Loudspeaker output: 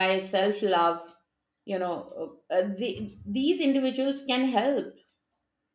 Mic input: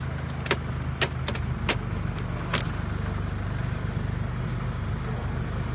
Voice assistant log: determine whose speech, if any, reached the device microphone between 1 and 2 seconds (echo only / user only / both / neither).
neither